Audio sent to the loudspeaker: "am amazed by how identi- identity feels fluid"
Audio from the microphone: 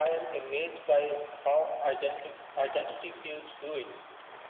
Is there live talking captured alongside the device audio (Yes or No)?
No